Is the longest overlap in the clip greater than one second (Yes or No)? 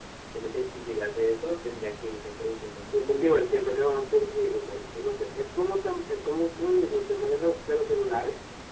Yes